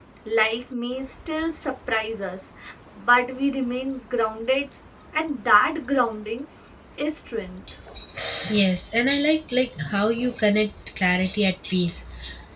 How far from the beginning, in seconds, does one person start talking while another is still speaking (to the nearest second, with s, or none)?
none